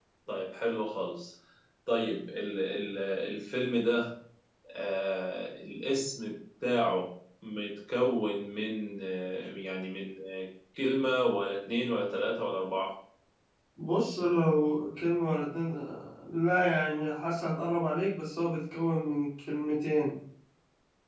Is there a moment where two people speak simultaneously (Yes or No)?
No